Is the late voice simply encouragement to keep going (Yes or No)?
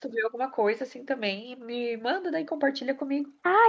No